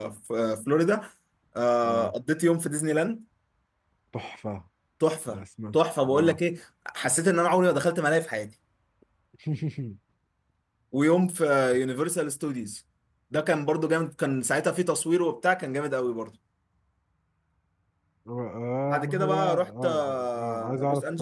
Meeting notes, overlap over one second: present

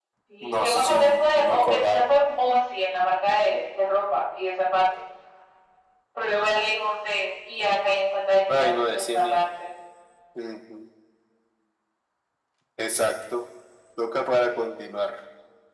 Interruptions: present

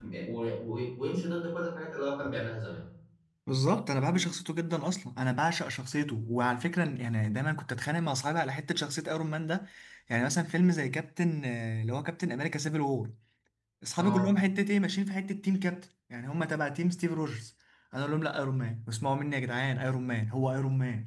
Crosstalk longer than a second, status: none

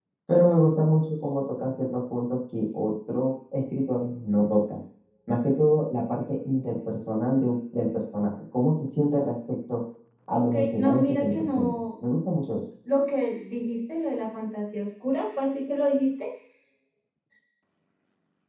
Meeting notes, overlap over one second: present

